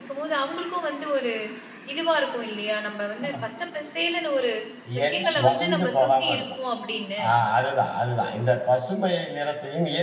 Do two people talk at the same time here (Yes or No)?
Yes